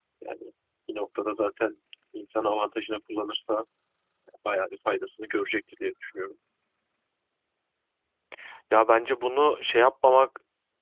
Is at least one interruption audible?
No

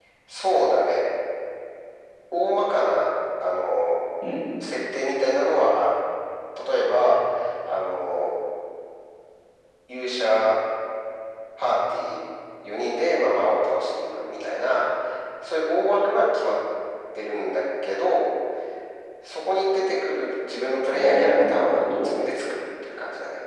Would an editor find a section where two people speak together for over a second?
Yes, from 20.9 s

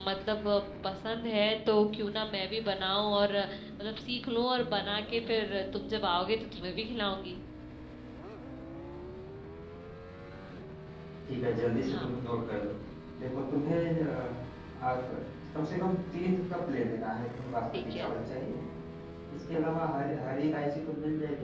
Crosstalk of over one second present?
No

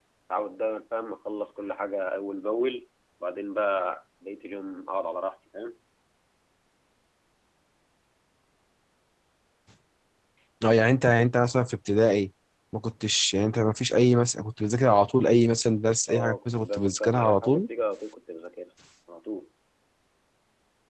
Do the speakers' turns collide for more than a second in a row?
Yes, from 16.1 s

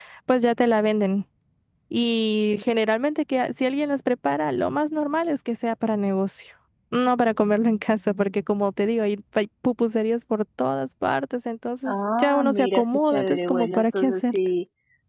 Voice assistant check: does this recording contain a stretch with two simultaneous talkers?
Yes, from 11.8 s

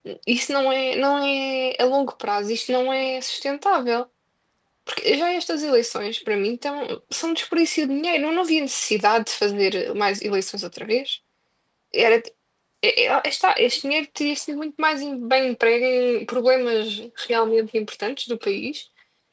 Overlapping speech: No

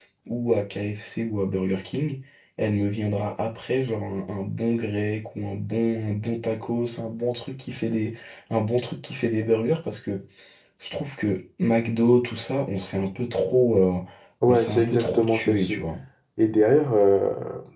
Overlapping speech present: Yes, from 14.5 s

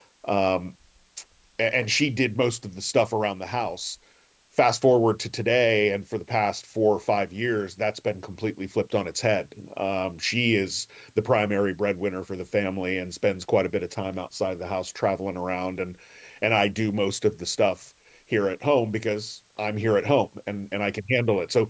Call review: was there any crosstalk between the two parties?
No

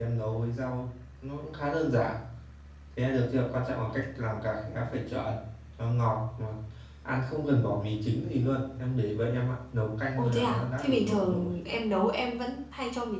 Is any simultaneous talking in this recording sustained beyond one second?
Yes, from 10.2 s

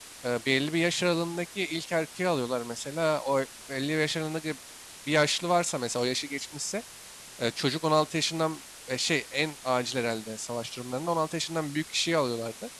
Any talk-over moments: No

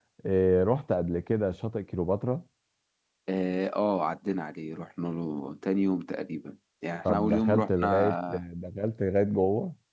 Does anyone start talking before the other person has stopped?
Yes, from 7.0 s

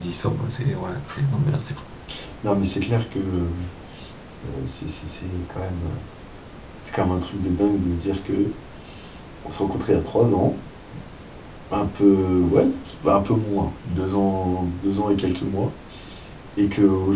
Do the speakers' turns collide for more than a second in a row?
No

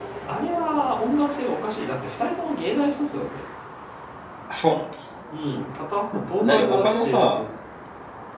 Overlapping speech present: Yes, from 6.1 s

